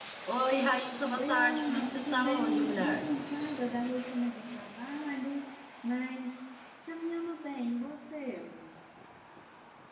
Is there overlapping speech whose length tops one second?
Yes, from 1.1 s

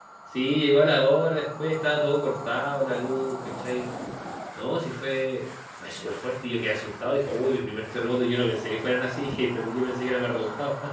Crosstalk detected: No

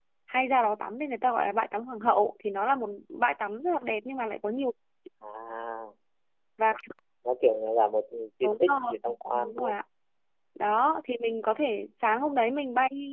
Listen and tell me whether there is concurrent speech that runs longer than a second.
Yes, from 8.4 s

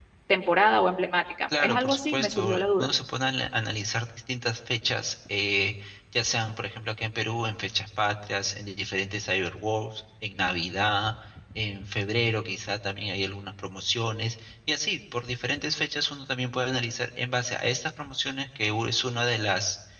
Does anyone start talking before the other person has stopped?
Yes, from 1.5 s

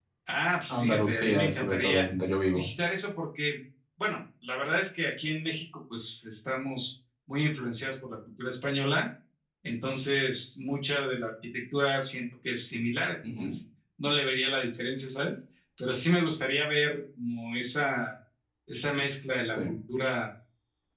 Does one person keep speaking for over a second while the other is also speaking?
Yes, from 0.7 s

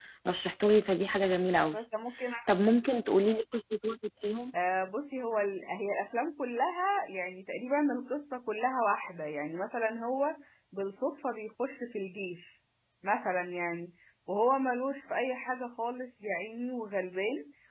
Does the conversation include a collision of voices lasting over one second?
No

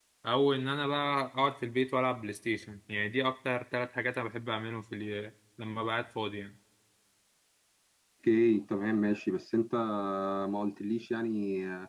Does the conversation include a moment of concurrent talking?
No

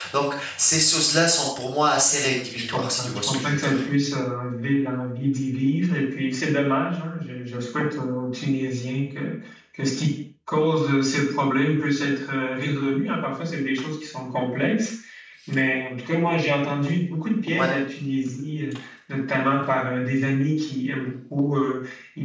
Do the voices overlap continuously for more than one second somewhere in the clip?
Yes, from 2.2 s

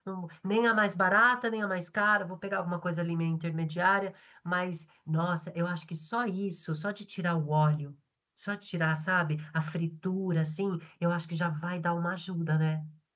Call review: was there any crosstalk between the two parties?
No

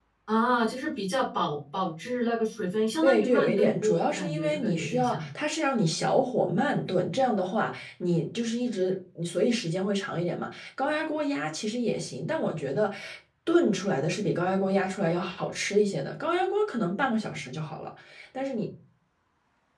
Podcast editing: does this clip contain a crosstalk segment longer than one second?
Yes, from 3.0 s

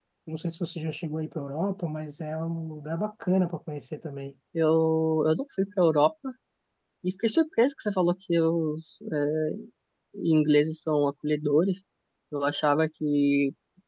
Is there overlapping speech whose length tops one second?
No

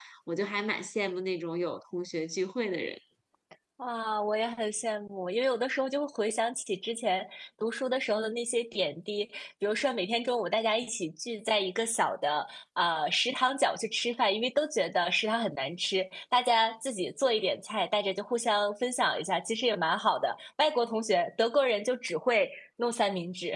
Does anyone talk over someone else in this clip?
No

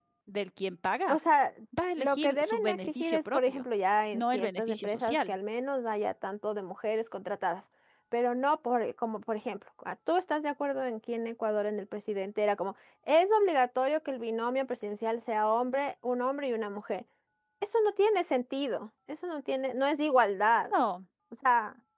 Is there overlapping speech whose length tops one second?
Yes, from 2.0 s

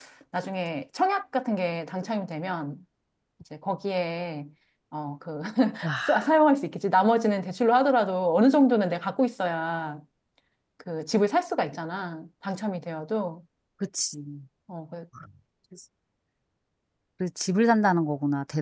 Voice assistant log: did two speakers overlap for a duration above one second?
No

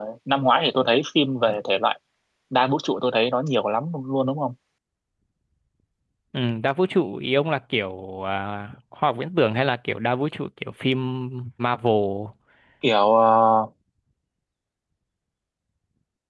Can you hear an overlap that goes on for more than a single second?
No

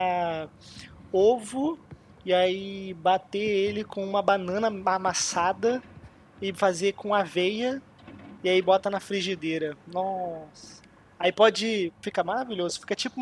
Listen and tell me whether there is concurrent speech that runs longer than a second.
No

